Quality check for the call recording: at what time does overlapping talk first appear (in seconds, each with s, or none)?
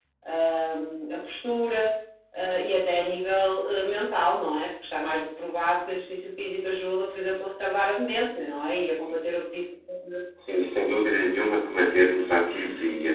none